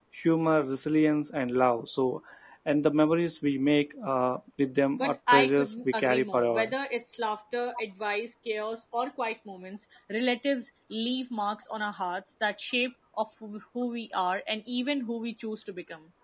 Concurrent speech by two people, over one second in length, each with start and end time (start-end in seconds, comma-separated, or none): 5.0-6.7